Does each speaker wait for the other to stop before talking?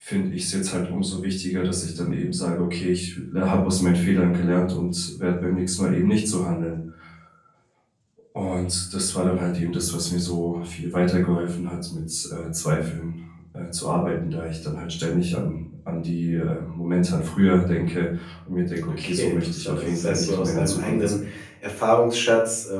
No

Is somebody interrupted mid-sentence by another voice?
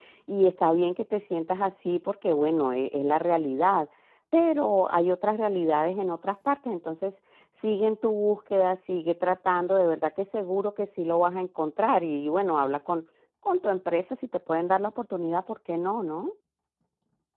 No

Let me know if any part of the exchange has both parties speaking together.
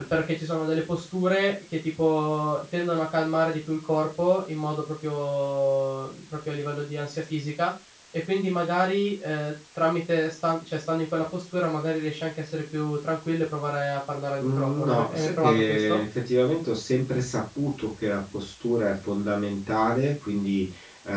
Yes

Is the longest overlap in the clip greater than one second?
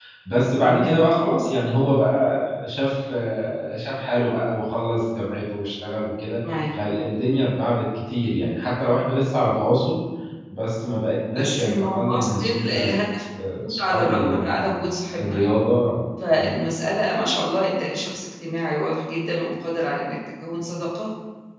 Yes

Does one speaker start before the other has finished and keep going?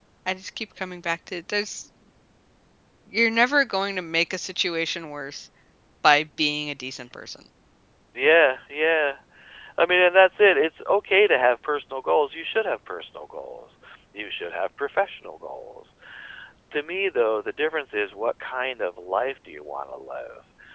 No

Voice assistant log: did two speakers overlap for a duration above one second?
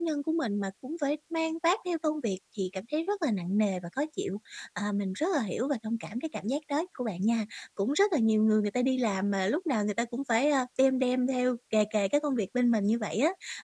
No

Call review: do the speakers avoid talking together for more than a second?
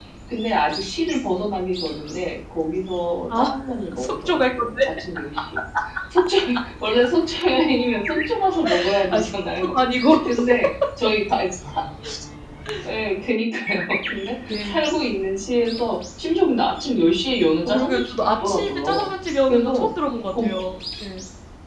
No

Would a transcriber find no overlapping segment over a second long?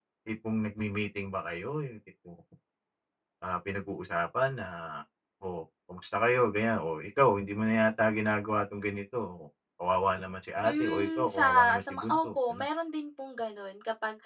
No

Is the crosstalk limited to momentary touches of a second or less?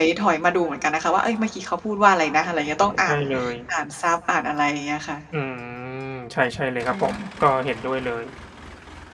Yes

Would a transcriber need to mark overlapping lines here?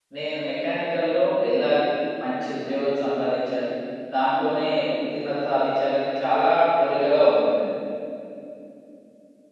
No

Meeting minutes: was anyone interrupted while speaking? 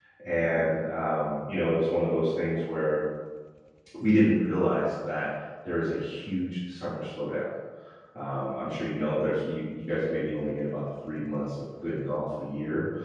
No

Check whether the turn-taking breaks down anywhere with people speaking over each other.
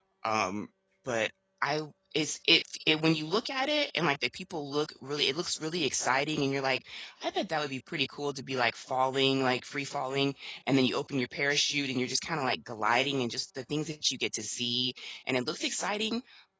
No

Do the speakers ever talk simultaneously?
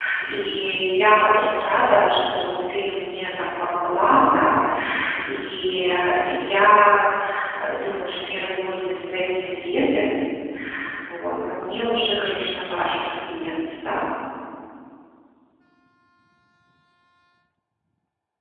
No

